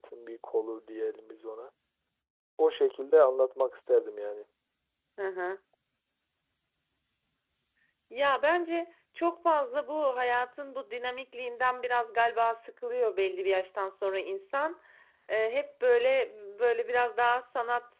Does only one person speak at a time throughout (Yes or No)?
Yes